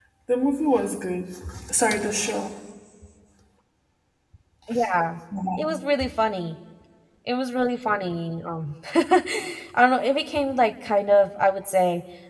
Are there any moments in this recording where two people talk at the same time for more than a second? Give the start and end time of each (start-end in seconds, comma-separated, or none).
none